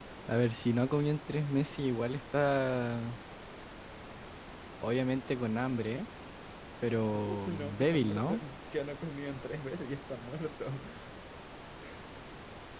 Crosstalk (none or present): present